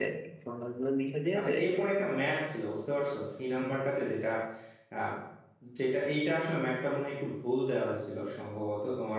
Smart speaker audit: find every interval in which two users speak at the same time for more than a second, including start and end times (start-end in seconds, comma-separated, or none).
none